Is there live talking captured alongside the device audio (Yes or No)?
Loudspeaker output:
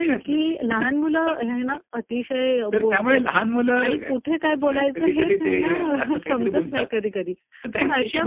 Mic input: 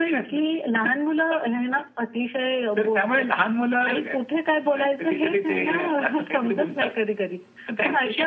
No